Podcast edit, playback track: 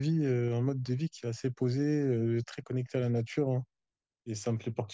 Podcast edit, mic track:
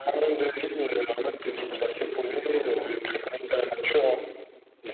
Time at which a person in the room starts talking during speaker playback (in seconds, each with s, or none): 1.4 s